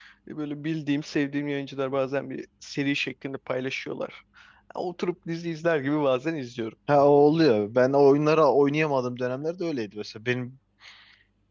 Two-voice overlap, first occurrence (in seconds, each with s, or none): none